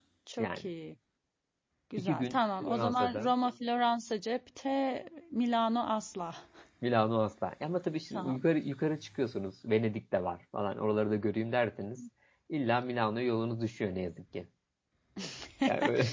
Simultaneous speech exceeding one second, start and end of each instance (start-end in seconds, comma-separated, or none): 2.0-3.3